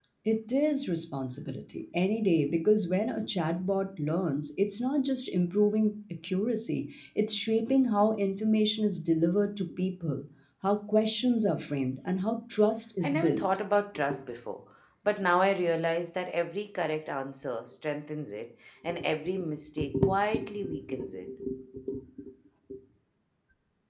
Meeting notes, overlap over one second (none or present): none